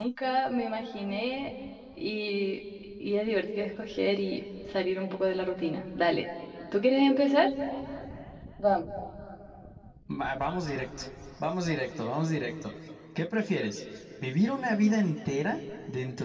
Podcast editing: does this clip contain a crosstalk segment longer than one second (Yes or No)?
No